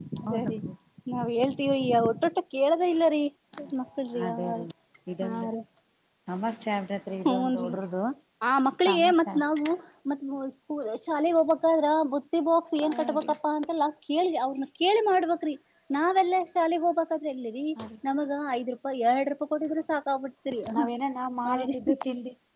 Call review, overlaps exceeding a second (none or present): none